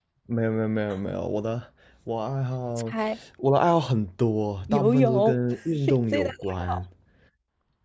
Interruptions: present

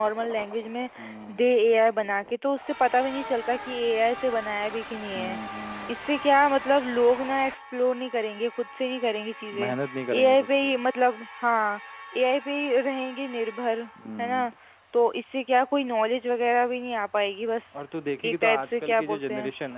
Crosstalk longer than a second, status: present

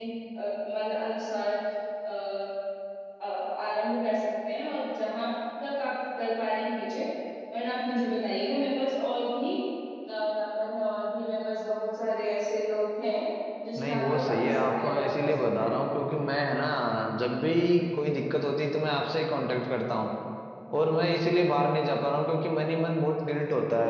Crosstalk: present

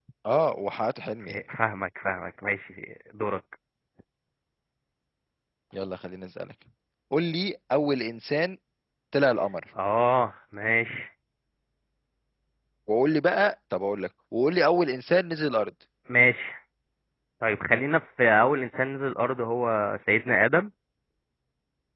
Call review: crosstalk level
none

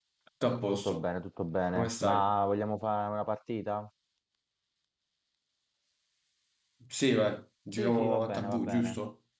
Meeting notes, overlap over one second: present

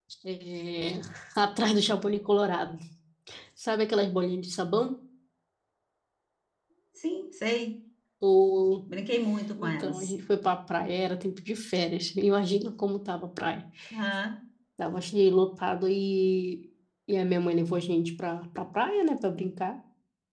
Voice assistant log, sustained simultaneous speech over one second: none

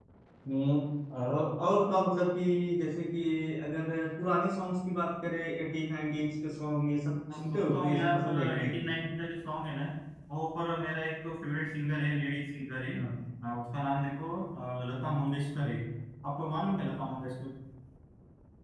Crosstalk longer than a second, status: present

